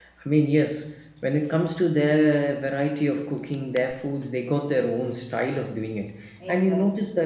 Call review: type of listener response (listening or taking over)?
listening